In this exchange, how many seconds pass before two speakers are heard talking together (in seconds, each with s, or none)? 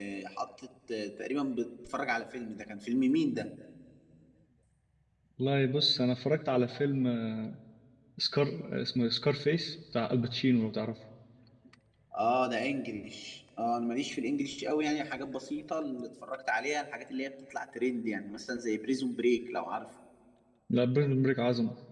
none